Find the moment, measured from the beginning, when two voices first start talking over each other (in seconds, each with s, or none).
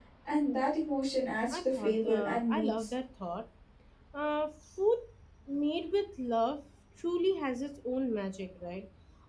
1.5 s